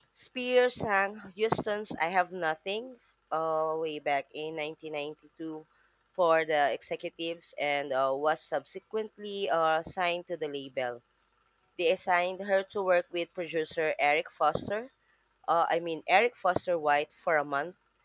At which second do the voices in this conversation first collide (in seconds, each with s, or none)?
none